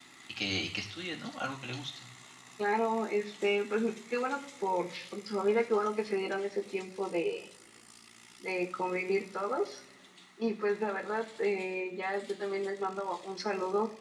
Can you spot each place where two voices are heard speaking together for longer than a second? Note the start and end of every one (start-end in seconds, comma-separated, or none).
none